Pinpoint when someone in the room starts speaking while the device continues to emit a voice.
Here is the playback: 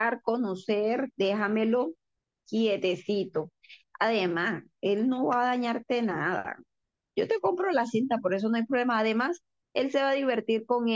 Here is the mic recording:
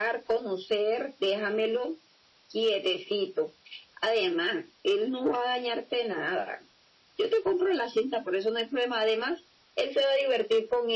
none

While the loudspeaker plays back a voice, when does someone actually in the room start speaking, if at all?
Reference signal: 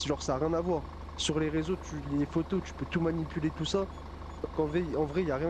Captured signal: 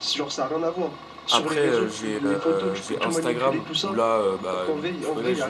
1.3 s

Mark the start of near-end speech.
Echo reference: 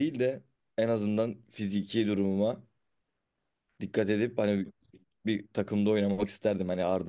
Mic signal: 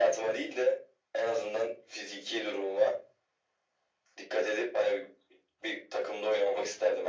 none

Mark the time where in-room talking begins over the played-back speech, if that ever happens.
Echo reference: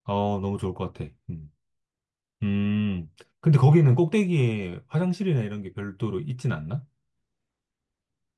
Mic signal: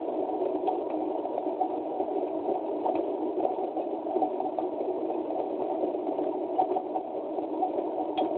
none

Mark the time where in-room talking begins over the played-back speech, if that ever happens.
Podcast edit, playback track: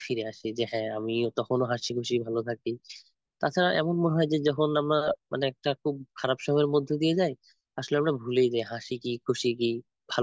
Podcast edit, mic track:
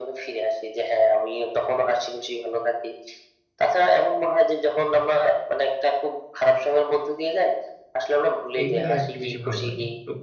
8.6 s

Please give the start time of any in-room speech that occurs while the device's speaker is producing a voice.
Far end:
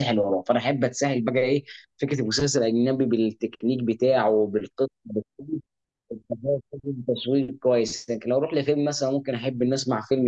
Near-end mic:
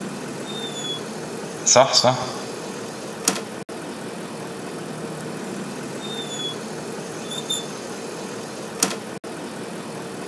1.6 s

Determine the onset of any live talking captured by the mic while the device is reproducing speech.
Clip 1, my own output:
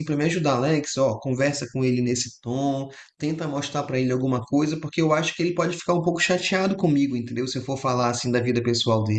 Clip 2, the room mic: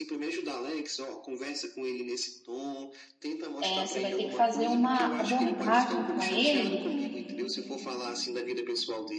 3.6 s

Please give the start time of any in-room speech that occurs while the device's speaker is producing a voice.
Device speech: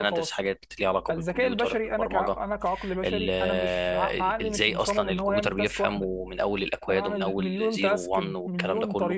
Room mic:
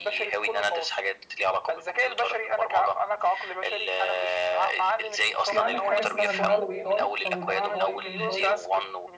5.5 s

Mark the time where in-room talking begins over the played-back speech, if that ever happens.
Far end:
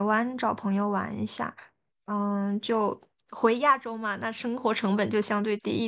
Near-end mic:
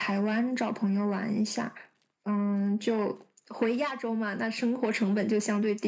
none

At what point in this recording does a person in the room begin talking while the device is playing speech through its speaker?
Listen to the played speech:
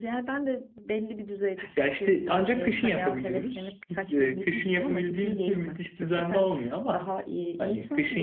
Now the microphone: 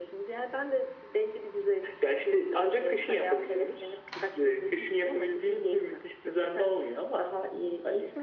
none

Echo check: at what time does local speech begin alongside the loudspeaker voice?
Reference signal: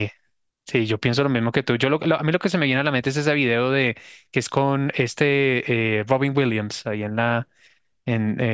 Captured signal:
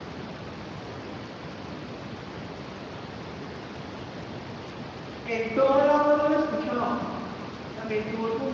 5.2 s

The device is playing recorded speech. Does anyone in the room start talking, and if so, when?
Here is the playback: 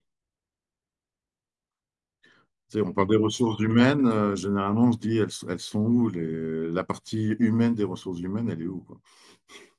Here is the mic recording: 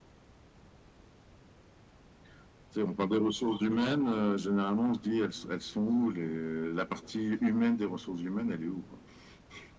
none

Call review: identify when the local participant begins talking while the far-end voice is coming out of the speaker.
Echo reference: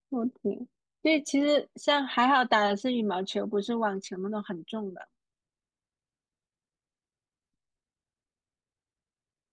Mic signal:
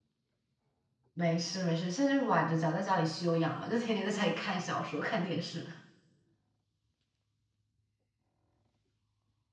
1.1 s

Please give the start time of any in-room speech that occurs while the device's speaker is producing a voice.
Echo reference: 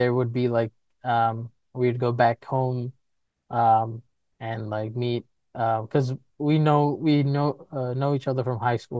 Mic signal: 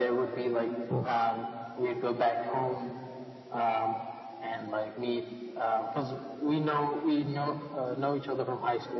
0.9 s

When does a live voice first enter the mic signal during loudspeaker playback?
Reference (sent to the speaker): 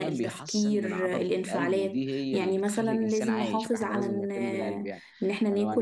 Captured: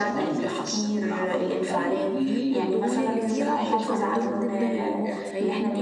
2.0 s

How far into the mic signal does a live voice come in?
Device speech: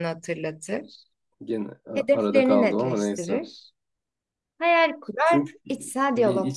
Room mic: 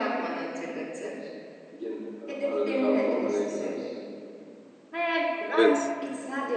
5.4 s

